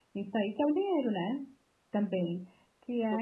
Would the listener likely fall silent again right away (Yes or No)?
Yes